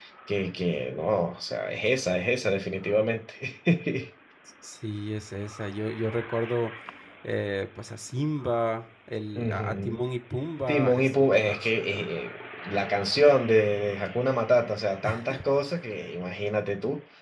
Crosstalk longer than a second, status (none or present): present